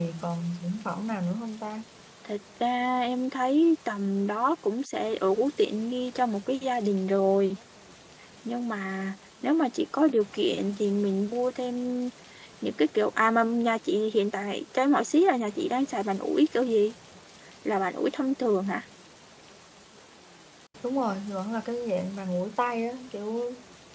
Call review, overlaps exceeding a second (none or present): none